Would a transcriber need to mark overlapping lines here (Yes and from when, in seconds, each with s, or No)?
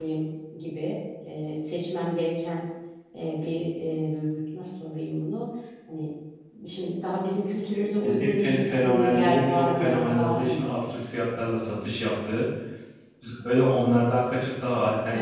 Yes, from 7.8 s